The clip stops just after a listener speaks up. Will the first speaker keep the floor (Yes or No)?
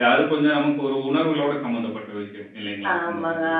No